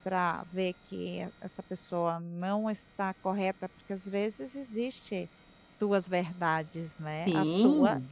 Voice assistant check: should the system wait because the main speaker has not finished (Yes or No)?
No